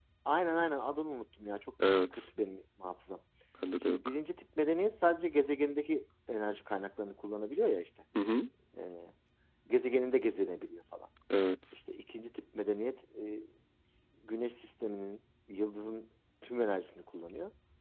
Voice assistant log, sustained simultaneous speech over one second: none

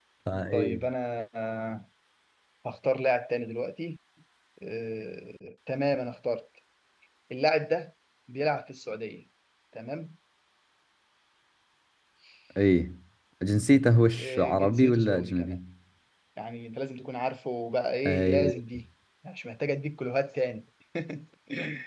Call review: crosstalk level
present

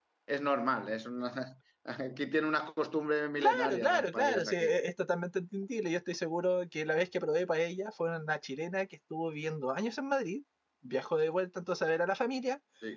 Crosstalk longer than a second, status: present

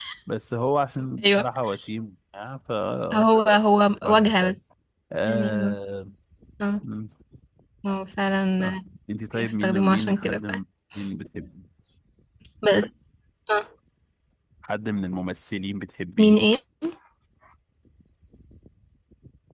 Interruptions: present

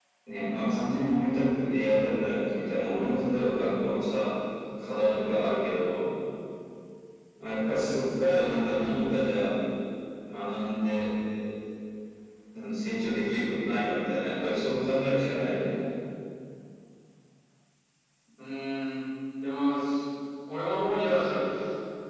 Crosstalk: none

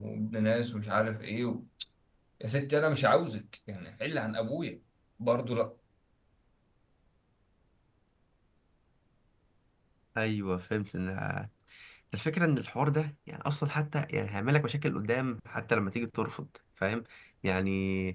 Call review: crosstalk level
none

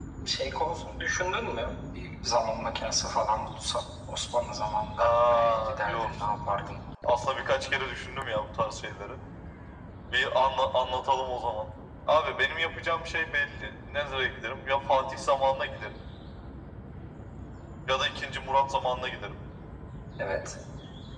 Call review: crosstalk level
present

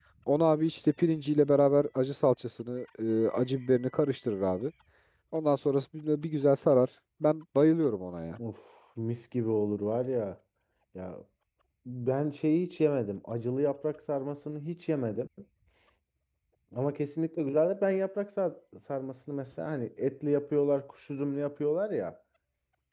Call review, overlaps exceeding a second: none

